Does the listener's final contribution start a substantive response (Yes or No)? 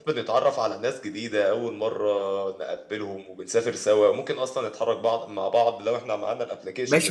Yes